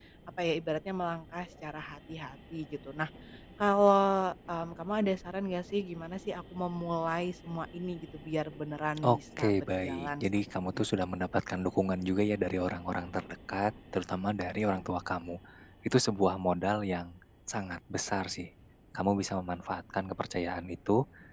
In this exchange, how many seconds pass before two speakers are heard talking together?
9.0 s

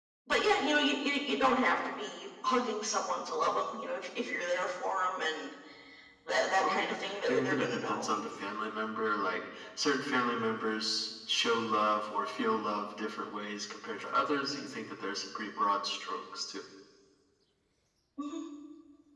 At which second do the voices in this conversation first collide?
6.5 s

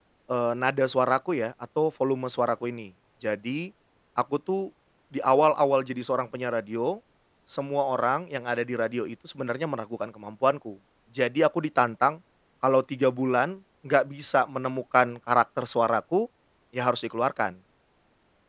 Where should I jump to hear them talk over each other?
none

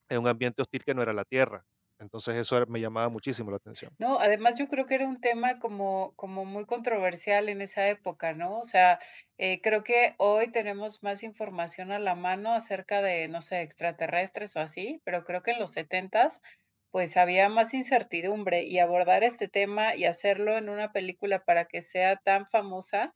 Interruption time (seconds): none

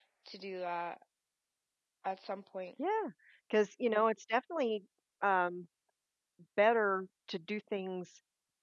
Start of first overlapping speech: none

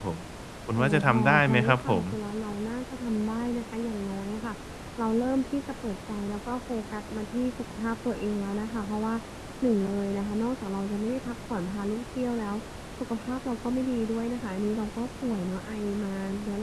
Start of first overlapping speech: 0.8 s

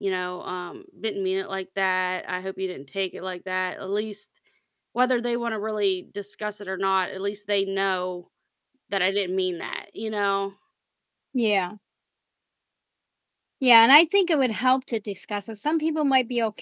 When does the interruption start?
none

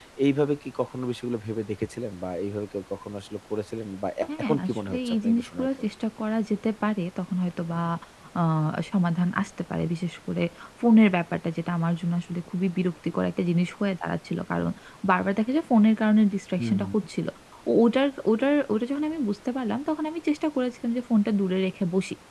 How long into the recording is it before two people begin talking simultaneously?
4.4 s

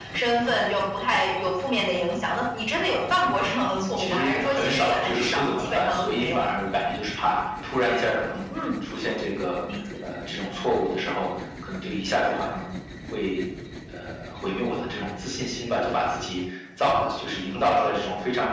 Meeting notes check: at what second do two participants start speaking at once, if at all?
3.8 s

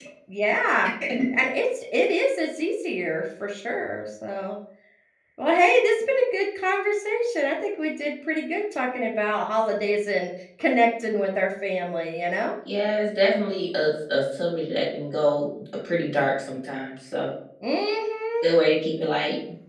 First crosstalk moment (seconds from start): none

